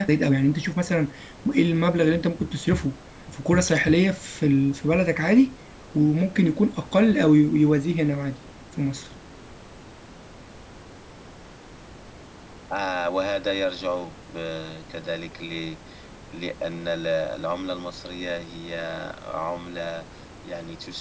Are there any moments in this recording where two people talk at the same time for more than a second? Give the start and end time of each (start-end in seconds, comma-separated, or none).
none